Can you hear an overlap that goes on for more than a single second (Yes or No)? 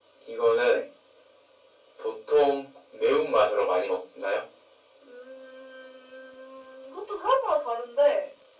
No